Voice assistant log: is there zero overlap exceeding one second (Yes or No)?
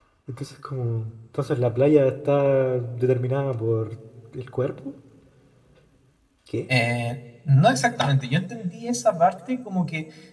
Yes